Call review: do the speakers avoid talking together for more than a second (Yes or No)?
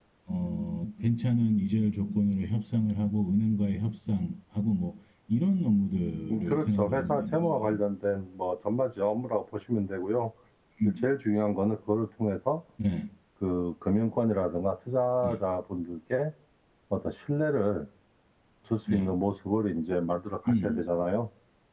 No